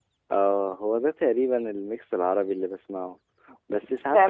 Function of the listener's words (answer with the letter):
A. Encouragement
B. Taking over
B